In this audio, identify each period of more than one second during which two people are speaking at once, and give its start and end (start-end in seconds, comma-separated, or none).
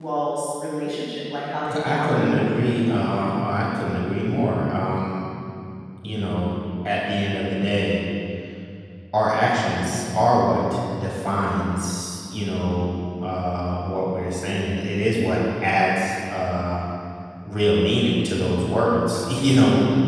1.7-3.2